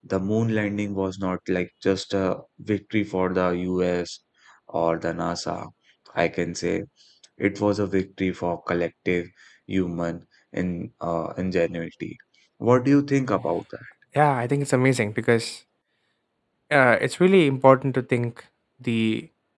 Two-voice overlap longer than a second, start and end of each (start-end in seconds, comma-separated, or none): none